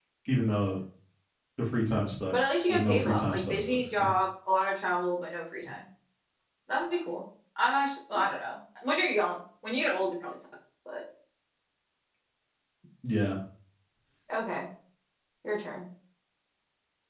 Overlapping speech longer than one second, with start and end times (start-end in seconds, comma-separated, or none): 2.3-4.1